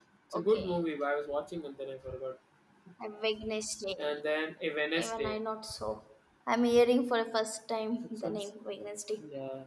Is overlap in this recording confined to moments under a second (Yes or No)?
Yes